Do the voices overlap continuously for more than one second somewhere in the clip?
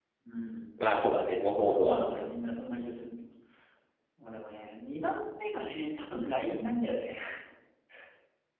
No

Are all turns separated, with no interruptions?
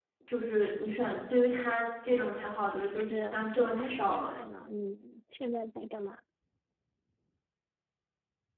No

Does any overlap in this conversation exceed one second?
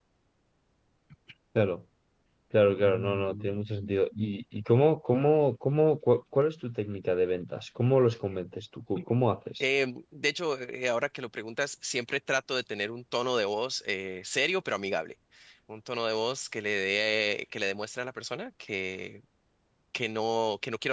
No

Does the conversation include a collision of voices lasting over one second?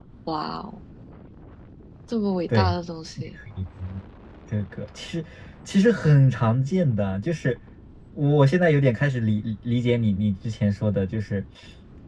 No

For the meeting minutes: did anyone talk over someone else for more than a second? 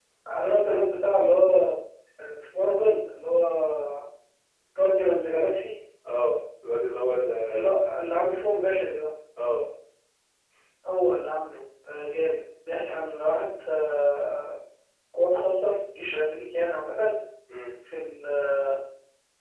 No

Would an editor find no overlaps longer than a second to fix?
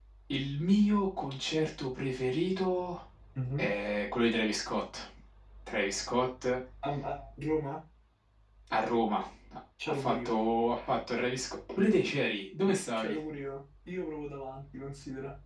Yes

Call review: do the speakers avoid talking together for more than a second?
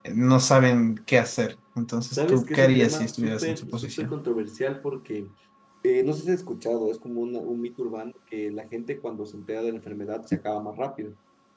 No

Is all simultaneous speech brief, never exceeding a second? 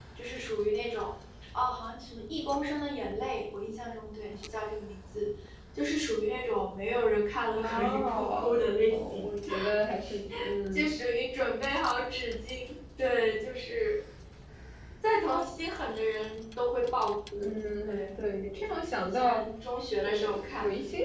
No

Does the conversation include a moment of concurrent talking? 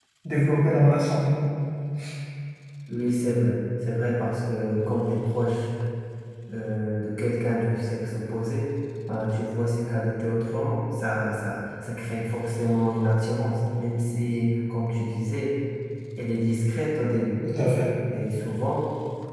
No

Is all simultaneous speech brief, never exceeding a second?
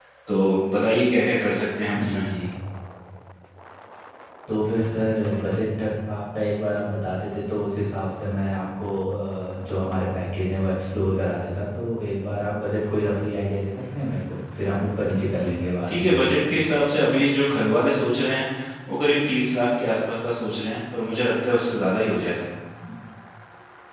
Yes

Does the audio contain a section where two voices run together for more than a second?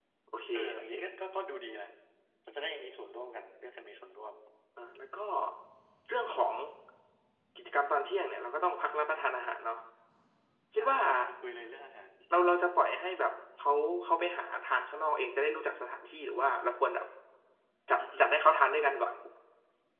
No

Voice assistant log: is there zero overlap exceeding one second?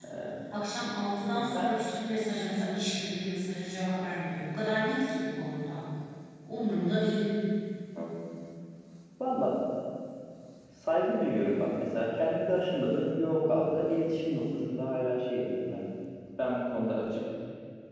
Yes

